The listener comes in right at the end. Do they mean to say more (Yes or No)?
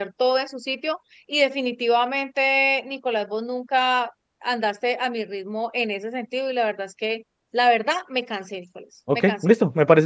Yes